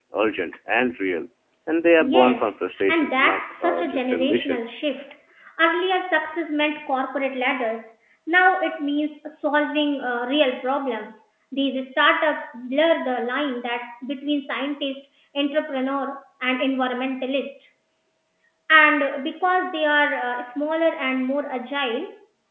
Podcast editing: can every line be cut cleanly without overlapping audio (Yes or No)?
No